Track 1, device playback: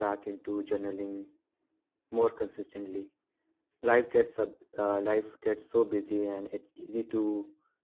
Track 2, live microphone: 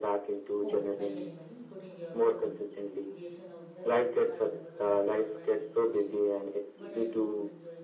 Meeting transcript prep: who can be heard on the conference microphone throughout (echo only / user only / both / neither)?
both